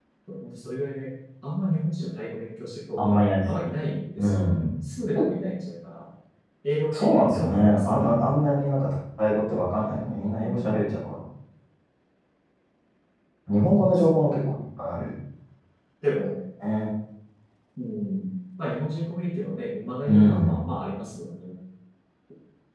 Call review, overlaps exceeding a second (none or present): present